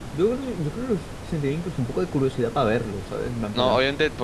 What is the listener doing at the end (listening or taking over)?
taking over